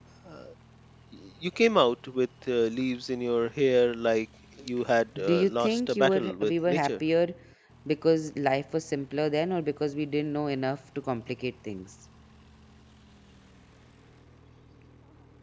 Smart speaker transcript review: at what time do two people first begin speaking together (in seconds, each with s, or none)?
5.2 s